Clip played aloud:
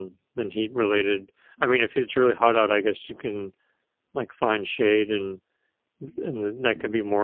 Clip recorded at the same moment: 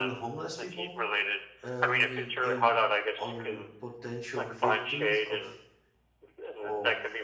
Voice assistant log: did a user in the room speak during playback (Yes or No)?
Yes